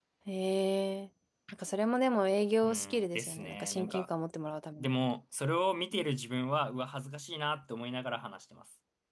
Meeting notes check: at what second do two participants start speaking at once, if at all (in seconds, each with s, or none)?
2.6 s